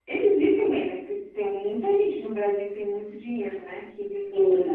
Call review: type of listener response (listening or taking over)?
taking over